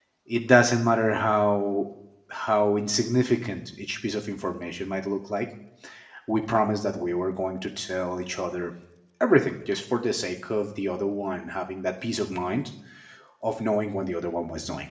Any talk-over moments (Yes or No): No